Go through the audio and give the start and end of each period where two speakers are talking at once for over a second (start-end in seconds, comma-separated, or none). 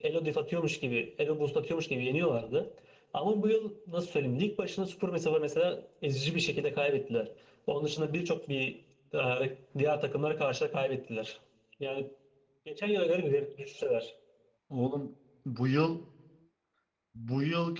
none